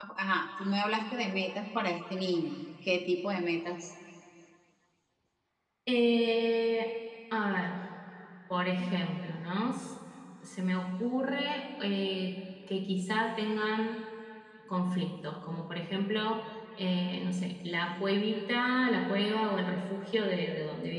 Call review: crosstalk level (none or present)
none